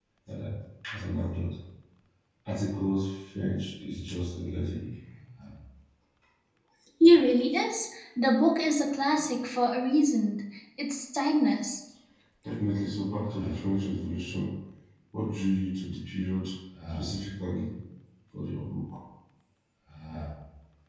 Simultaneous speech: No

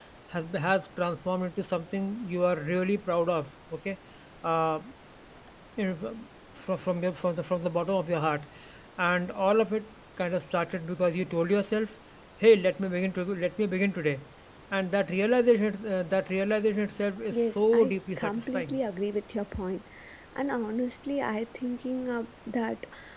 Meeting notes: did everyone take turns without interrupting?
No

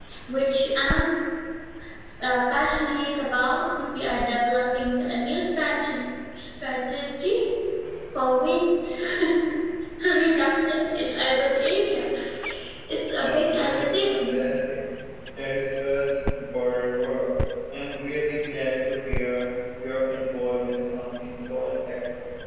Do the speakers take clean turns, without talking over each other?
No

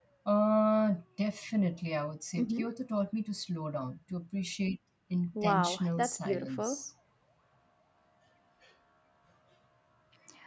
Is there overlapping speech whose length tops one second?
Yes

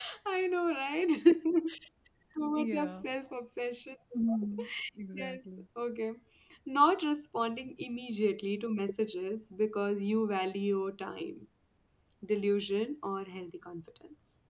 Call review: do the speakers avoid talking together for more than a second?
Yes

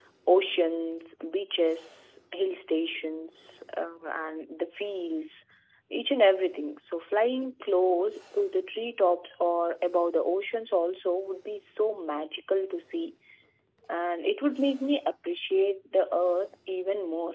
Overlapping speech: No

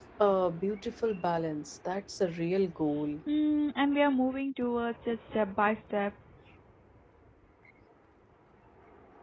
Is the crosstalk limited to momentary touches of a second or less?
Yes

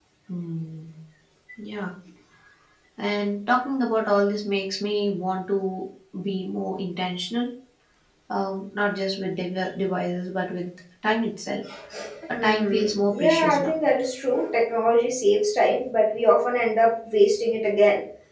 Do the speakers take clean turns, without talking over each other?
No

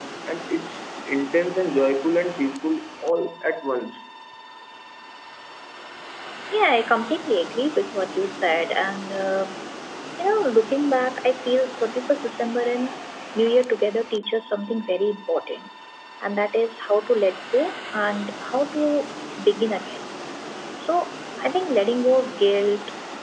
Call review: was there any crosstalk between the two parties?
No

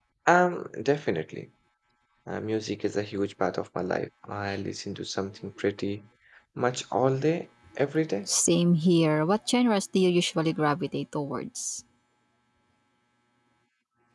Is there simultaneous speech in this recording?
No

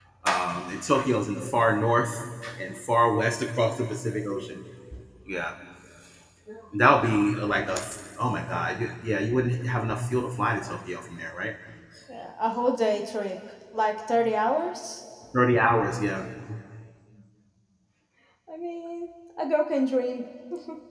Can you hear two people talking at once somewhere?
No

